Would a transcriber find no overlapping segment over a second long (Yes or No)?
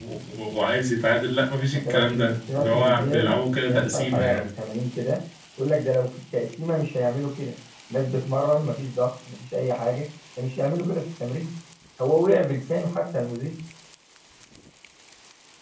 No